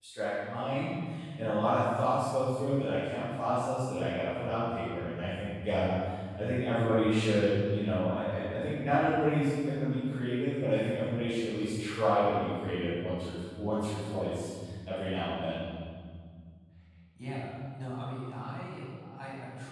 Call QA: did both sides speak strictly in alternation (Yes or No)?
Yes